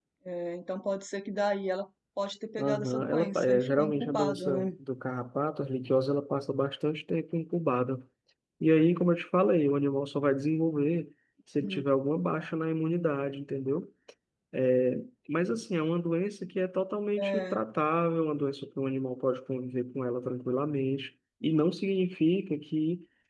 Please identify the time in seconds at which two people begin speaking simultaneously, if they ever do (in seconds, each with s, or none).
2.6 s